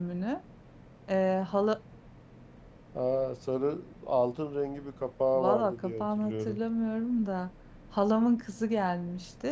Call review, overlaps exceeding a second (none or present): present